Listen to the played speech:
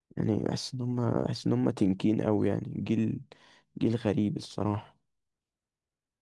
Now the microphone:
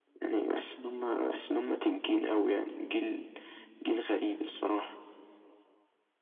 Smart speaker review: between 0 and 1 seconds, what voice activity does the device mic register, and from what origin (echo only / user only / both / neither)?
echo only